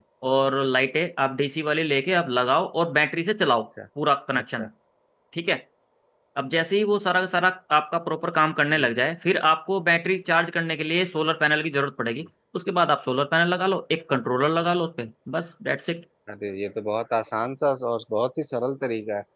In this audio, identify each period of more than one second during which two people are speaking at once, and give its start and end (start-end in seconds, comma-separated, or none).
none